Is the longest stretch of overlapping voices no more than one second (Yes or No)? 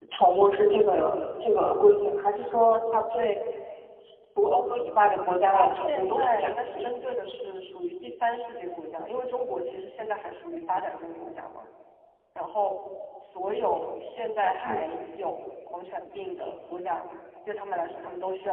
No